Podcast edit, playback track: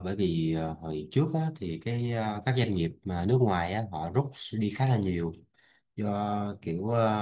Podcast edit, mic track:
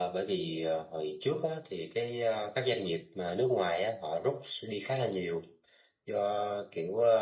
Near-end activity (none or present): none